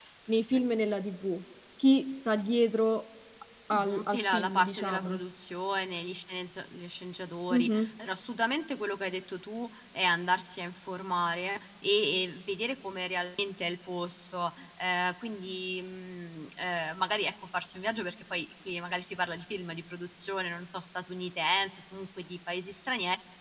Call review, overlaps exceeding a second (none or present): present